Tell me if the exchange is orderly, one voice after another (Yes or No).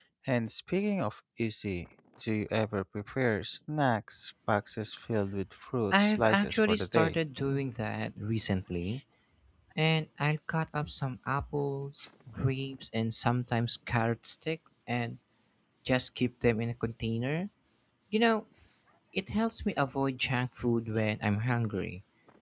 No